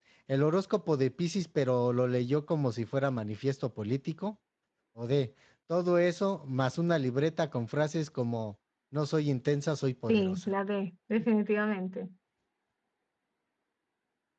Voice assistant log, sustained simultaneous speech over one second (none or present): none